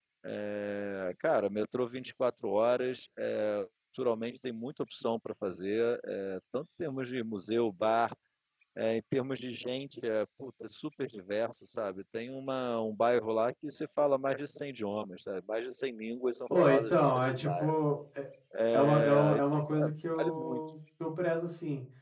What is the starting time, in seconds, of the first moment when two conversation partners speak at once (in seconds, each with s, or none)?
16.6 s